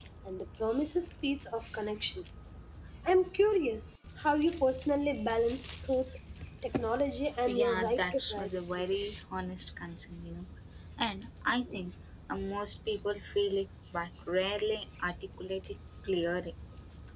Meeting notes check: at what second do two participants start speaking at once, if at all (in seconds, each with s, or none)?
7.4 s